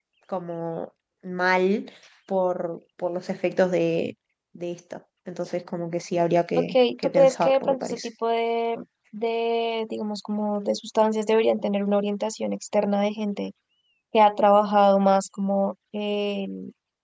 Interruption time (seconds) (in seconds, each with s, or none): 6.6 s